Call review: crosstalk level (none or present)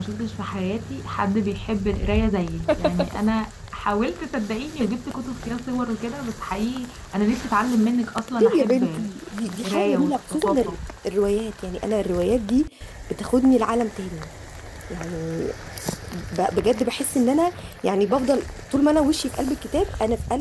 present